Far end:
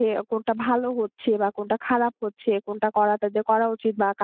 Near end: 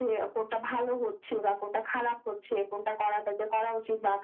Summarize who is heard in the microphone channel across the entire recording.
echo only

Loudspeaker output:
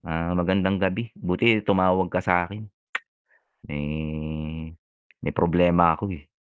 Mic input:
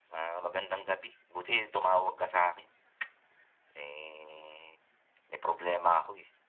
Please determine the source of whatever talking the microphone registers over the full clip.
echo only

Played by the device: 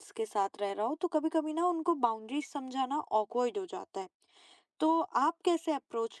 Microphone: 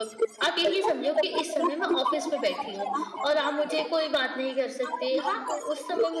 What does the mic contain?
both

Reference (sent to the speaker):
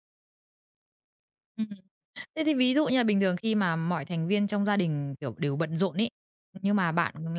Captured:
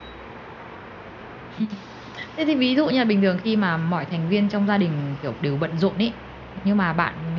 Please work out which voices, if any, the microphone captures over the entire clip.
echo only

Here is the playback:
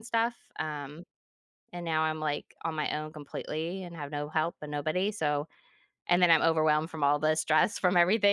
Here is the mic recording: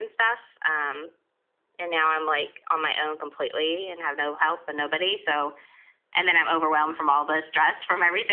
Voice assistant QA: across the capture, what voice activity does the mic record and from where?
echo only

